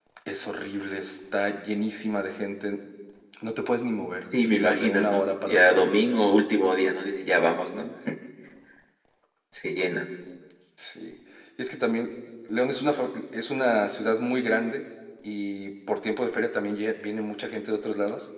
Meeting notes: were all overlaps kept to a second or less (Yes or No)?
No